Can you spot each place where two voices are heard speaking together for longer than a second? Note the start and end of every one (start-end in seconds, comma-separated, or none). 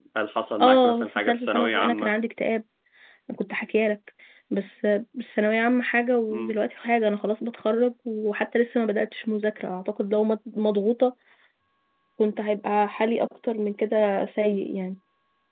0.6-2.1